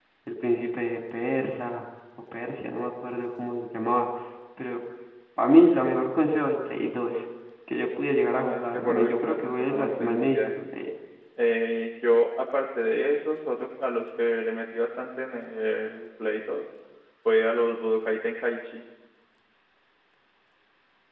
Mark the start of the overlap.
8.3 s

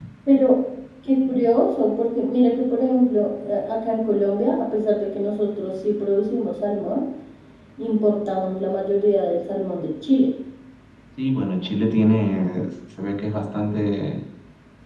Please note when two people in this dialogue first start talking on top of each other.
none

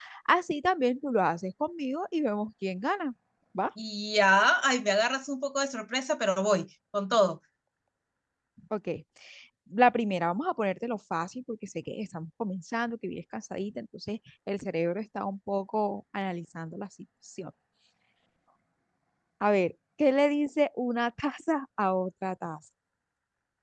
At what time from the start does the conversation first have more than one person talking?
none

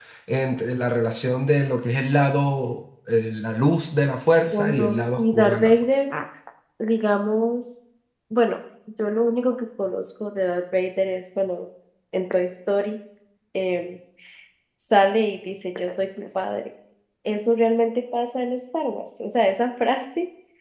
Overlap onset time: 4.5 s

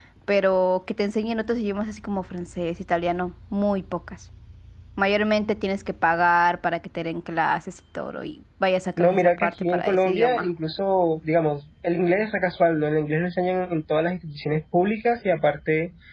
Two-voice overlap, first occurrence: 9.0 s

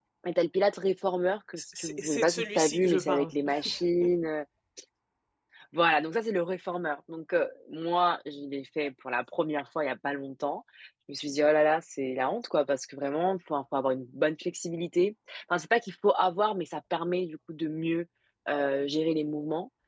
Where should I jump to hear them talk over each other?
1.6 s

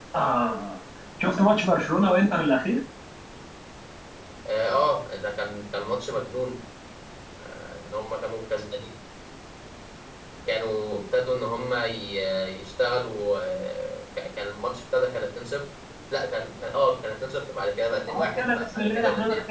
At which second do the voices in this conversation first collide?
18.1 s

